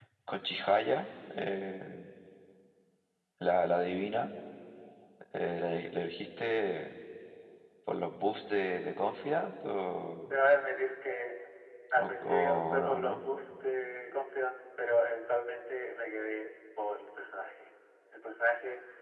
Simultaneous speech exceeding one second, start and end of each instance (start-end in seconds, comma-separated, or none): 12.0-13.2